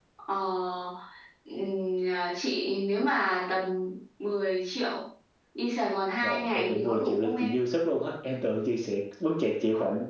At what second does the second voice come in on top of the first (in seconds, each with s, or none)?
6.2 s